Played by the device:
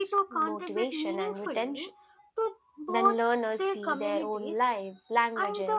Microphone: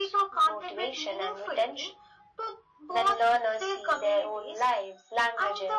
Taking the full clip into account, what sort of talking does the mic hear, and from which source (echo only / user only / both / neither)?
echo only